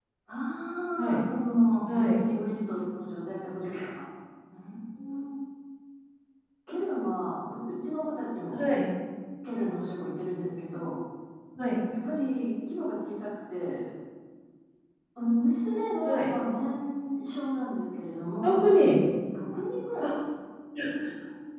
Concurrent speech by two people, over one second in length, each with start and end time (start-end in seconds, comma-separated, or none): none